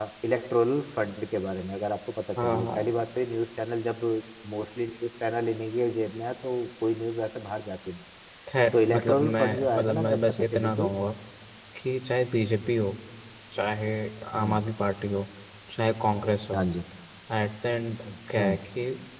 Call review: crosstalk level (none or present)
present